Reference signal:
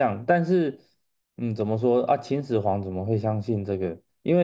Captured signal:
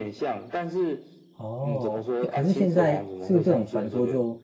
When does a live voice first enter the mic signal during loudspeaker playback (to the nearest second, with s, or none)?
1 s